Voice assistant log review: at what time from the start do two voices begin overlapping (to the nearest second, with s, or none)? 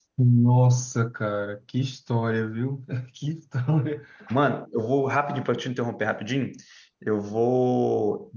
none